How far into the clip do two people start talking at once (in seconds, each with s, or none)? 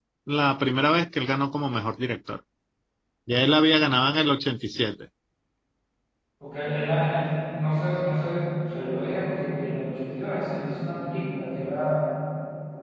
none